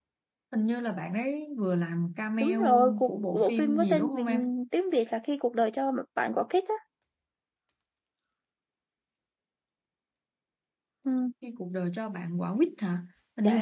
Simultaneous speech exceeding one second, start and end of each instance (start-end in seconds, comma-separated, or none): 2.4-4.3